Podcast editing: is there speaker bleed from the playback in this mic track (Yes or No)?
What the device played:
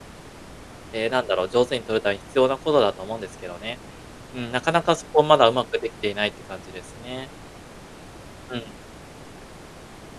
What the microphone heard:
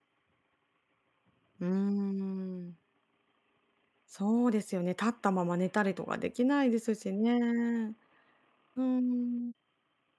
No